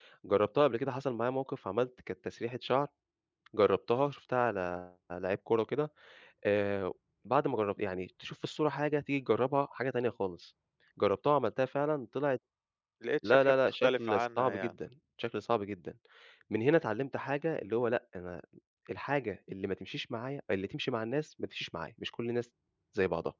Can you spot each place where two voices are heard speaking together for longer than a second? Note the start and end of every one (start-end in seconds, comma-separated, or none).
13.2-14.7